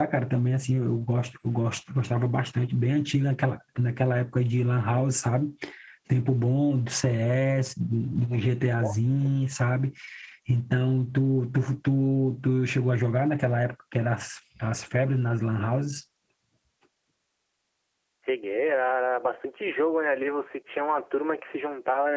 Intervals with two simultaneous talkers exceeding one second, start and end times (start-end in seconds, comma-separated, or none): none